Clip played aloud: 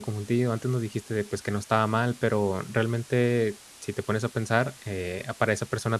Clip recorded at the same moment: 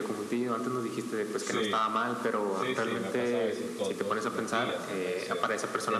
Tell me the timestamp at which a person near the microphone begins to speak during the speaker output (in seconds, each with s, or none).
1.4 s